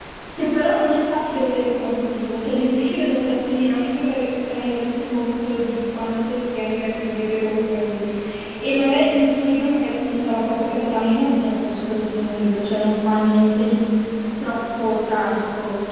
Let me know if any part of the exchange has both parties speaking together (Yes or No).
No